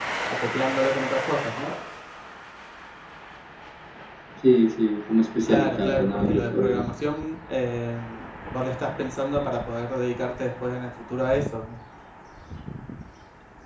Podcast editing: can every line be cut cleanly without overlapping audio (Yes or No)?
No